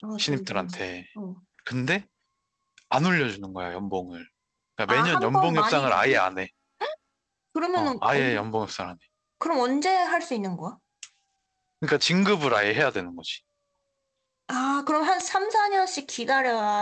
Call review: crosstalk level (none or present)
present